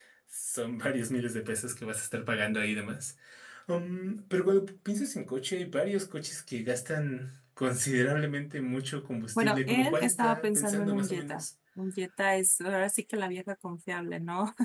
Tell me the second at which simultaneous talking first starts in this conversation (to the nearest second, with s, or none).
9 s